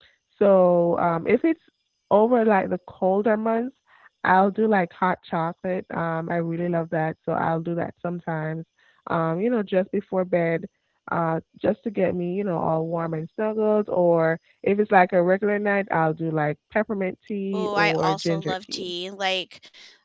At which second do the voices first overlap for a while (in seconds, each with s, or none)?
17.5 s